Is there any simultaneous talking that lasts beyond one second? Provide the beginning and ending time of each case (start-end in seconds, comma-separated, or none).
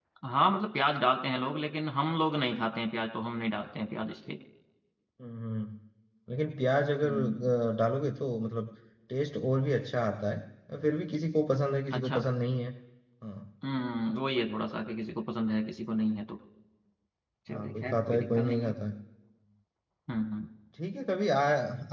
17.5-18.7